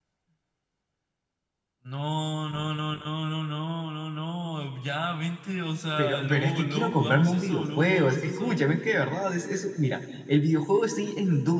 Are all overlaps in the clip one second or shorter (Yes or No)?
No